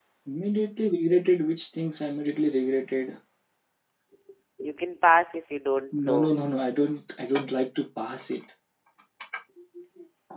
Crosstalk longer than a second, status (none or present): none